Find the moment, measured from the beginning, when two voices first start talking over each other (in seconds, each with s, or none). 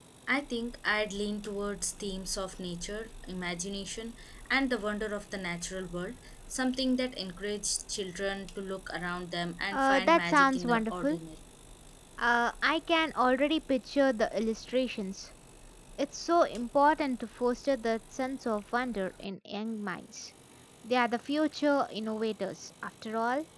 9.7 s